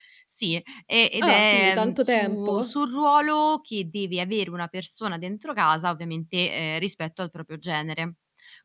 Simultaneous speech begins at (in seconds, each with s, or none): 1.2 s